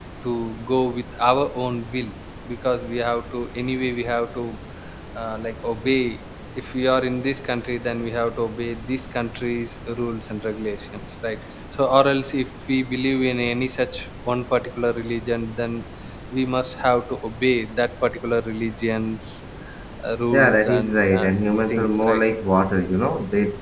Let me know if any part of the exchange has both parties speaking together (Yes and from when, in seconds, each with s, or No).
Yes, from 20.3 s